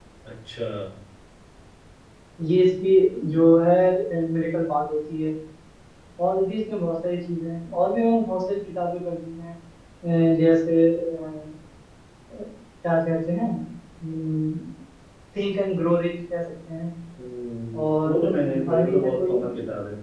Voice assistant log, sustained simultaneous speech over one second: present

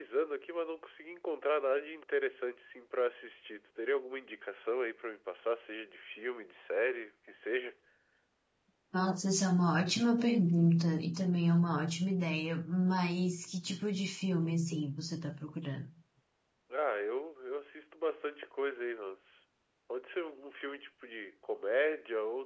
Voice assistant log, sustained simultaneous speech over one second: none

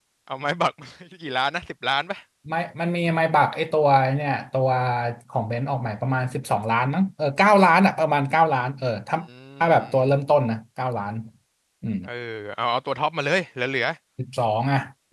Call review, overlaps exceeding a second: none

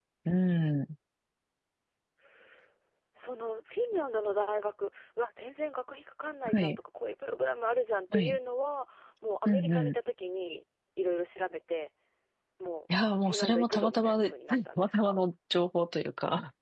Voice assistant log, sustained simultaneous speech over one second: present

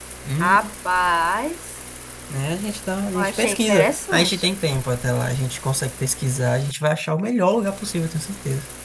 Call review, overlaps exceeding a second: present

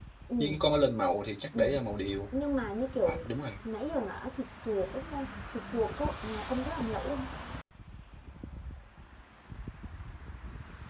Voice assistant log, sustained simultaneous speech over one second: none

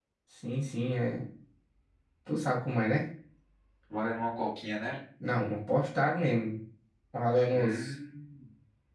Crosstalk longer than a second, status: none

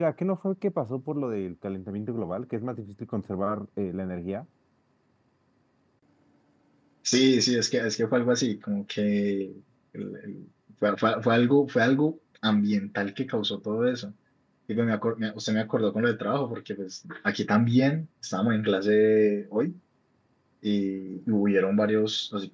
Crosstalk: none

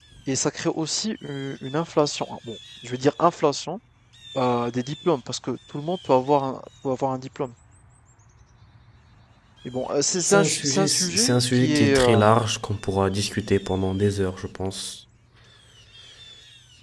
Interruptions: present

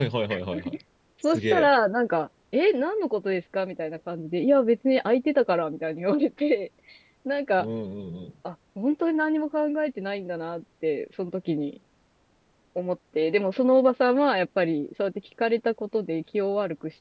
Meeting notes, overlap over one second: none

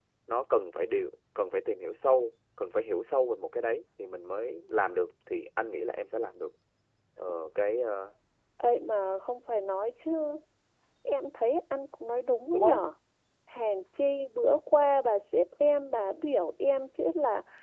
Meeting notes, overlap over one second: none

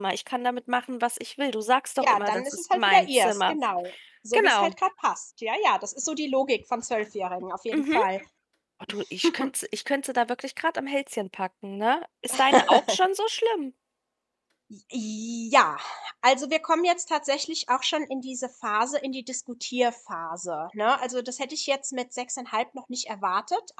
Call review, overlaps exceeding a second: present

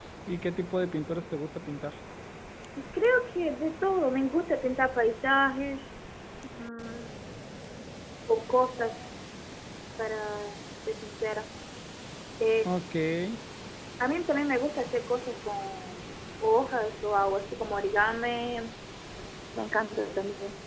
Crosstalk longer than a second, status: none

